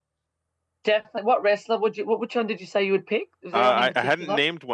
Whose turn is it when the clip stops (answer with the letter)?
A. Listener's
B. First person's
A